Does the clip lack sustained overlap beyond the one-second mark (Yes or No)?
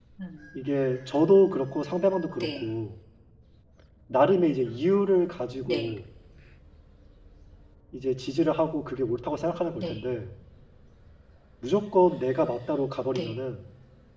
Yes